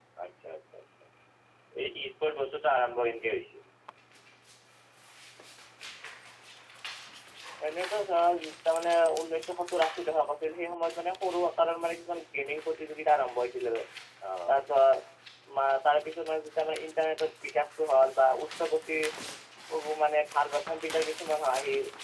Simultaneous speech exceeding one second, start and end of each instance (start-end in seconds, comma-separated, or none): none